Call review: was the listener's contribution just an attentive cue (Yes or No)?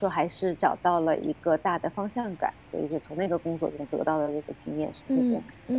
No